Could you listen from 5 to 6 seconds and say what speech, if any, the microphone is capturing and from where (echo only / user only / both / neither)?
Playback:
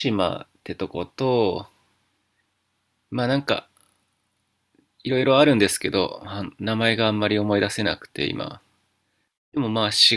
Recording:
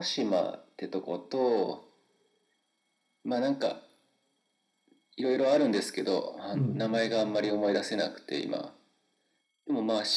echo only